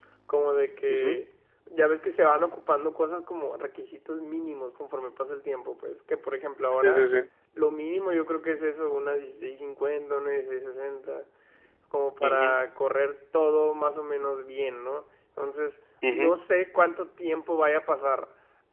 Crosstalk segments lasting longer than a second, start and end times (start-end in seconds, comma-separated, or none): none